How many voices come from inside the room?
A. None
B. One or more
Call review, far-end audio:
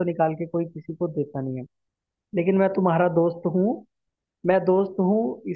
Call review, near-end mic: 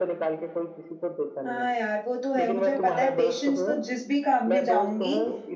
B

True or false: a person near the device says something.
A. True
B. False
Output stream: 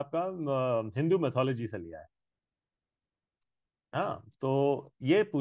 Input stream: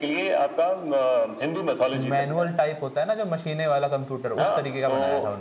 A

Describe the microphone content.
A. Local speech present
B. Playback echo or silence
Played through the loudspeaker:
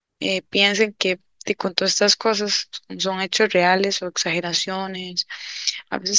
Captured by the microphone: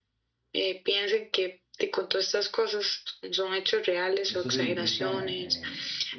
A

